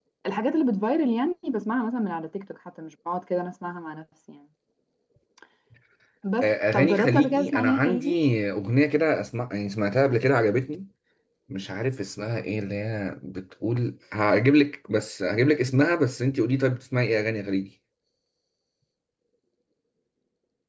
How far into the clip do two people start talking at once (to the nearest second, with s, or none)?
6 s